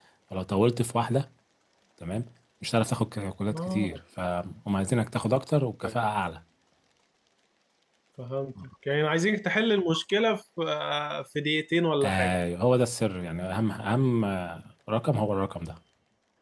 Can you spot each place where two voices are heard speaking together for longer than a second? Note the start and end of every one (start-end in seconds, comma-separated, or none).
none